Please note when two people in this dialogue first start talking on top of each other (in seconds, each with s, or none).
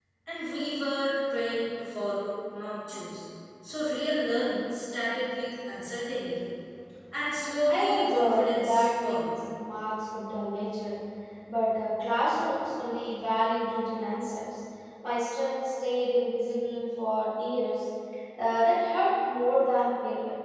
7.7 s